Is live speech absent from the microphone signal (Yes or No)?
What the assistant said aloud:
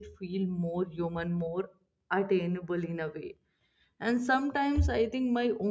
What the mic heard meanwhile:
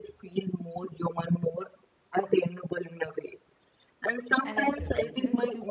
No